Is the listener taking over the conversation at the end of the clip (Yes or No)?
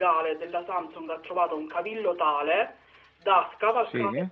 No